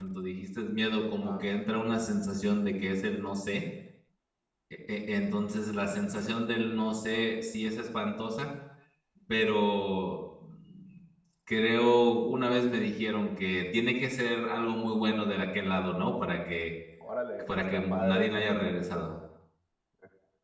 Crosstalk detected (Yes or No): Yes